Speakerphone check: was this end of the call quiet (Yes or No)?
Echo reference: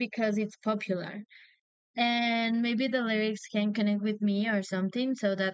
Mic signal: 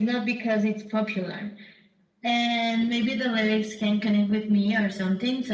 Yes